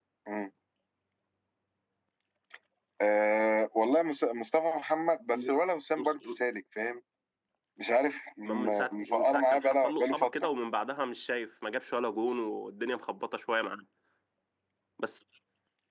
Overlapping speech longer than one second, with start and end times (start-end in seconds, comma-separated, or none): 8.4-10.3